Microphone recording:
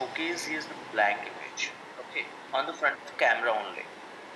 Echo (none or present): present